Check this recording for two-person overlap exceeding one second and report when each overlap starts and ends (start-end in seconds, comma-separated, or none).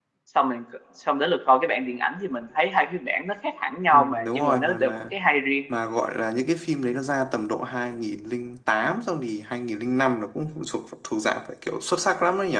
3.9-5.1